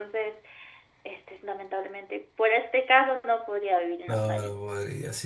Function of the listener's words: taking over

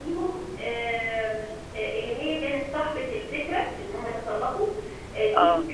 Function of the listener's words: listening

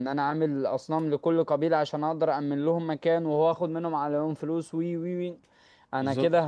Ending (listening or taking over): listening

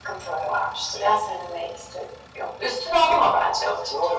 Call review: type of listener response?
taking over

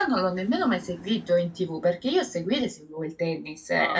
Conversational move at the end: listening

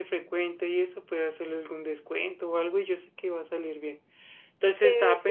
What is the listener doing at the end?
listening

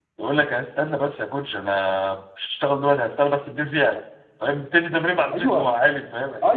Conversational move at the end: taking over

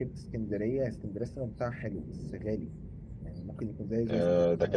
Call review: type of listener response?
taking over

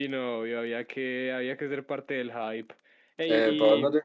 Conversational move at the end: taking over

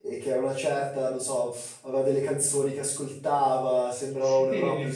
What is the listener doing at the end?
listening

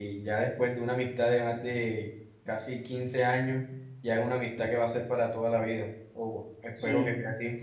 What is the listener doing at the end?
taking over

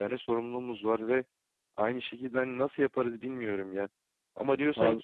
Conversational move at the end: listening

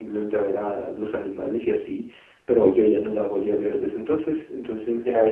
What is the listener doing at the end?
listening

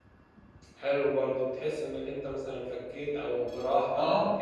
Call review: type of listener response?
taking over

